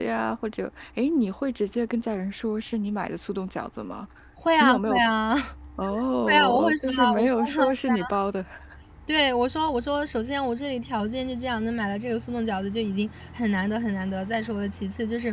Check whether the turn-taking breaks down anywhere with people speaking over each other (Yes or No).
Yes